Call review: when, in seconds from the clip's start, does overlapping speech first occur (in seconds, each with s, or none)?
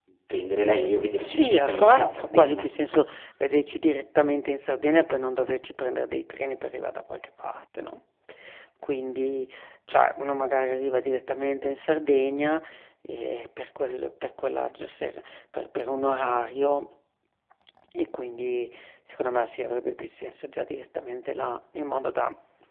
1.2 s